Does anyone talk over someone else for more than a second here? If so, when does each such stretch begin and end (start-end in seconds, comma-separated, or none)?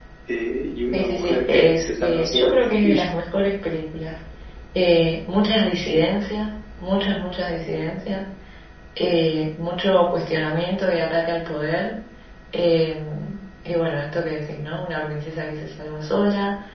0.9-3.0